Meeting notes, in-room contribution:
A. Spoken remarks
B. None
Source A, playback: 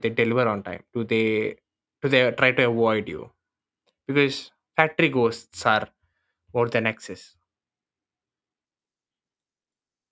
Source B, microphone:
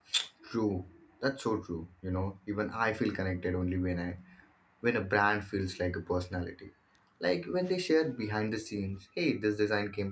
A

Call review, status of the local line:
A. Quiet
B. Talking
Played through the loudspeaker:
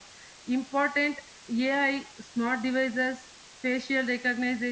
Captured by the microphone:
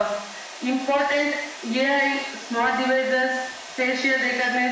A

